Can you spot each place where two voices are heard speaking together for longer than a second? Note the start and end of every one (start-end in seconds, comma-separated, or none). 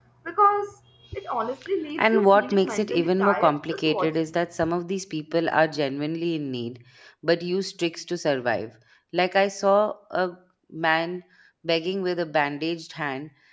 2.0-4.1